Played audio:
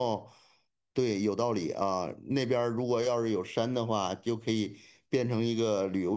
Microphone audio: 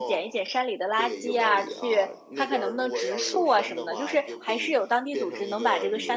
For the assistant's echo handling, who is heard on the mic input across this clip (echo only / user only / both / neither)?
both